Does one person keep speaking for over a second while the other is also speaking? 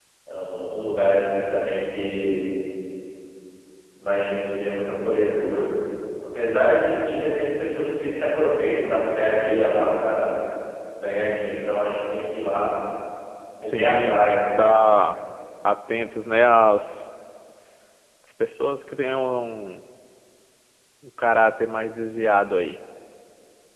Yes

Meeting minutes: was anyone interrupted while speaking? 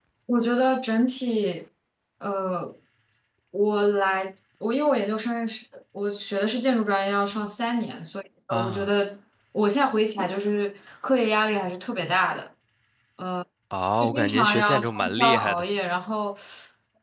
Yes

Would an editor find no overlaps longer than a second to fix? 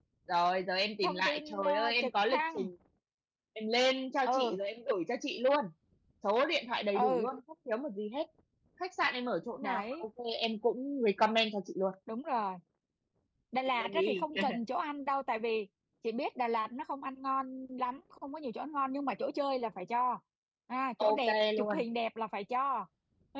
No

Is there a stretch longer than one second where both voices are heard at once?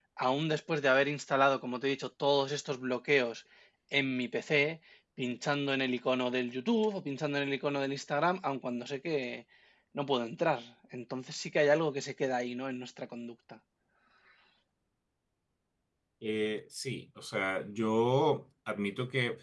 No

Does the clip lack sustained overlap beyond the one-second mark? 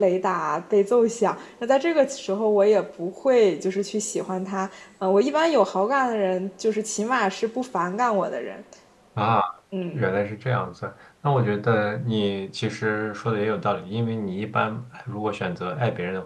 Yes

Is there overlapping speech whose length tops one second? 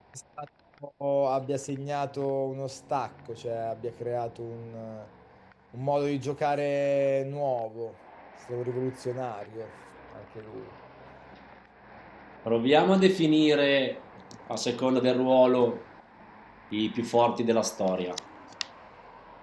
No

